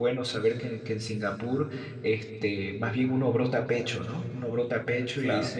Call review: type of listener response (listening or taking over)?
listening